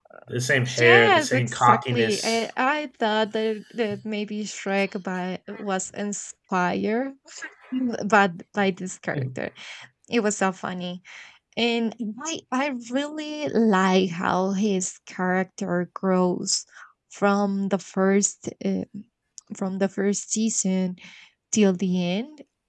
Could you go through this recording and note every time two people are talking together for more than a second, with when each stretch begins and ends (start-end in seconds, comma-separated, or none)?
0.8-2.5